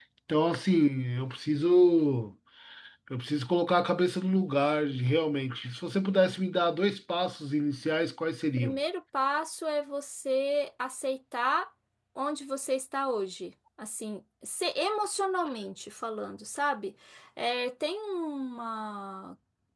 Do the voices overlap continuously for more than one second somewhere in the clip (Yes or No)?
No